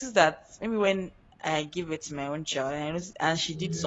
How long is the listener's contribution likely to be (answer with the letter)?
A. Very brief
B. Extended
A